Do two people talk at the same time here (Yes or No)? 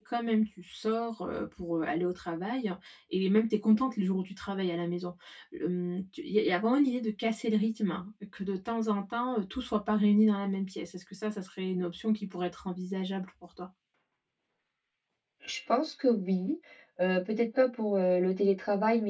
No